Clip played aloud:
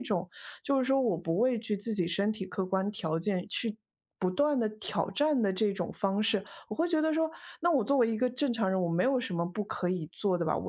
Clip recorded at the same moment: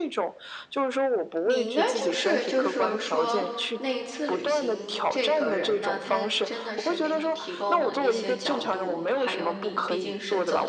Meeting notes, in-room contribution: present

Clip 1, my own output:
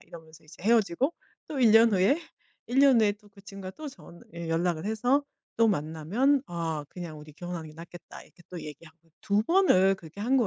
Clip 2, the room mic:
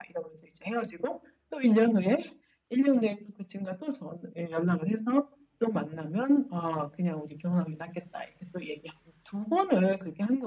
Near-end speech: none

